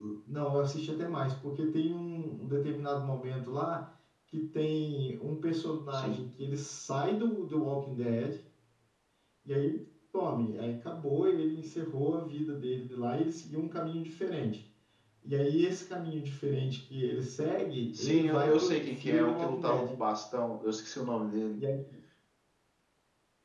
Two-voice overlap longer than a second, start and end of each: 17.9-19.9

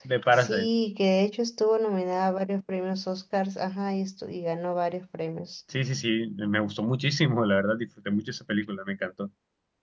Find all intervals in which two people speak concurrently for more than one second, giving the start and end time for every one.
none

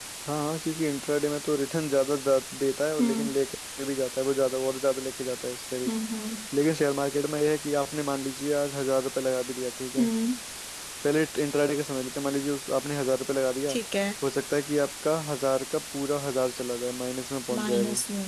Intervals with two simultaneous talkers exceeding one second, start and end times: none

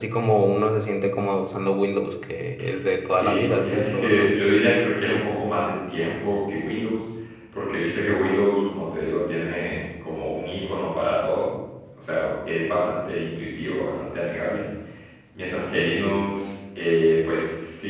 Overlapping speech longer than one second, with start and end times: 3.1-4.3

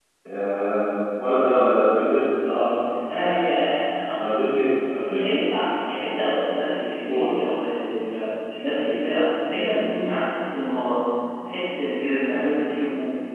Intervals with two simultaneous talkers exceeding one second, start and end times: none

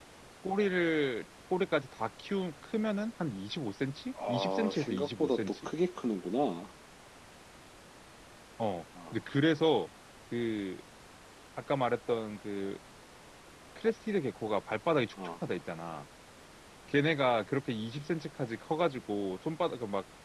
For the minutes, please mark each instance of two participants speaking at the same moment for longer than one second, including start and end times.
4.3-5.7

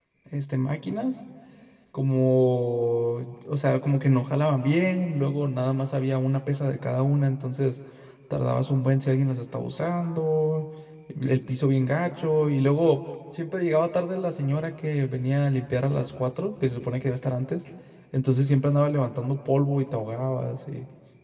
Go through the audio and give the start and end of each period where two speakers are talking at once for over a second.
none

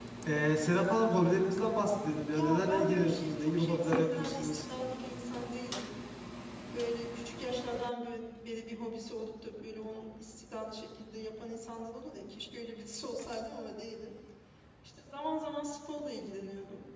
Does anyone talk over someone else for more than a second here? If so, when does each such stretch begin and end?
2.3-4.6

